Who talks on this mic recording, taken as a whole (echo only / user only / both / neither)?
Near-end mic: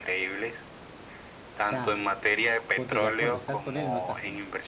both